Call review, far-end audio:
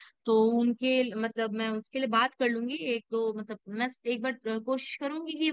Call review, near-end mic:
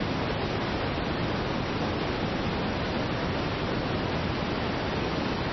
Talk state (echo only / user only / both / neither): neither